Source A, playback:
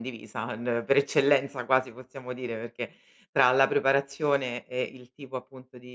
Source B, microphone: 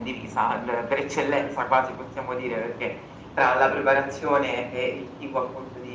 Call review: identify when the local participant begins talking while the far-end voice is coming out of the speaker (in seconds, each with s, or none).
none